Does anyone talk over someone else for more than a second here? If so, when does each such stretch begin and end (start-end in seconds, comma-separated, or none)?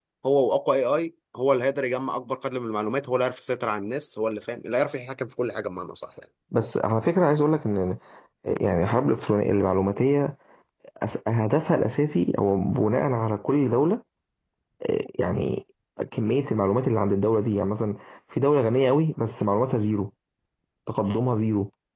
none